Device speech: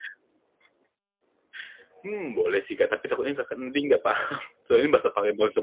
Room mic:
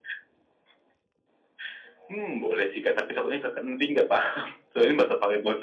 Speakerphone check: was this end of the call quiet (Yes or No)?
Yes